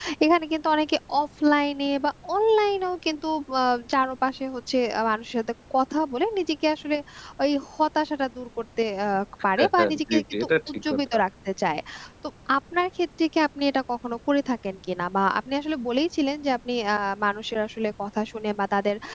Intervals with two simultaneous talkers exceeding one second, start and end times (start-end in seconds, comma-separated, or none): 9.6-11.2